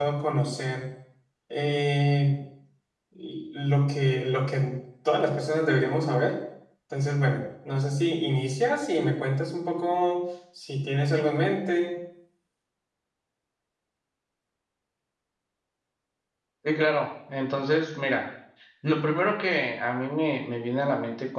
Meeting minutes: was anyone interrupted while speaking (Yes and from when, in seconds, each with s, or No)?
No